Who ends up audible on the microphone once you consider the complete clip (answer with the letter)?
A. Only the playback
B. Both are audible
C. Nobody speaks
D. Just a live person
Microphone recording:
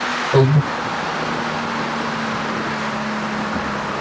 D